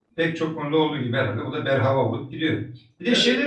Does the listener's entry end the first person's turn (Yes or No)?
No